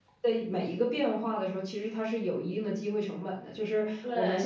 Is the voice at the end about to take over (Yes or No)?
No